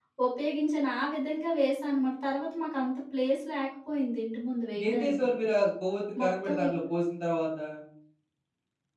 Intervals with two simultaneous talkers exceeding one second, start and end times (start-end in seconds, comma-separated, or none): none